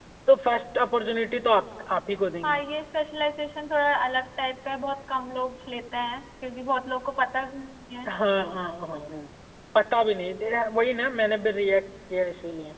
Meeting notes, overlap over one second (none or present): none